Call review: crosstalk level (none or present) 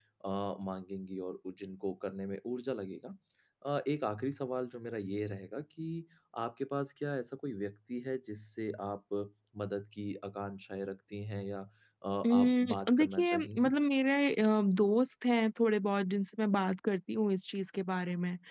present